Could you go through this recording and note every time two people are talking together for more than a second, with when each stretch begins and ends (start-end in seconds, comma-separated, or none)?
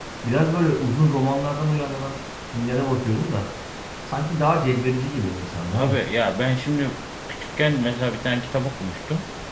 none